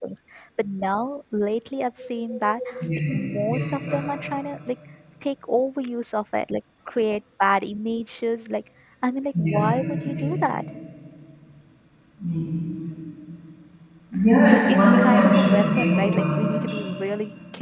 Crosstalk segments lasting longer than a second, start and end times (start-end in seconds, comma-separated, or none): 14.5-16.8